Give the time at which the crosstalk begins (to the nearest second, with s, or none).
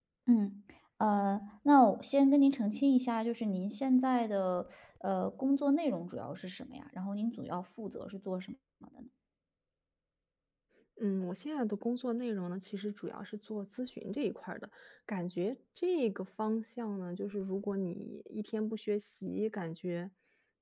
none